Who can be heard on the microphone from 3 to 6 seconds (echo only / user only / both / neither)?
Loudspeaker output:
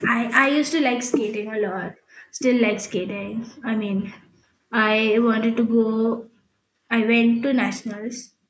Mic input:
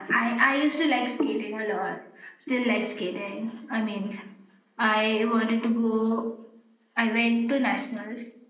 echo only